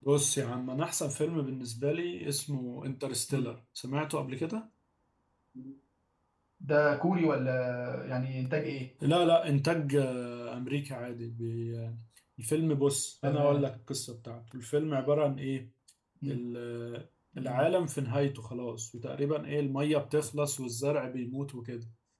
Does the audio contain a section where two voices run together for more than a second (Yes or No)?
No